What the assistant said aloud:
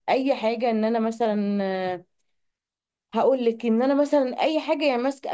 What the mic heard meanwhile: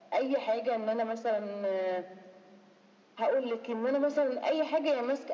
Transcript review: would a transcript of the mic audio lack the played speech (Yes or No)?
No